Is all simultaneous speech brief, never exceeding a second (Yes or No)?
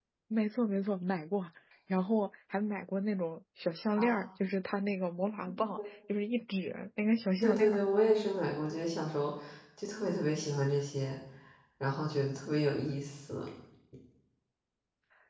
Yes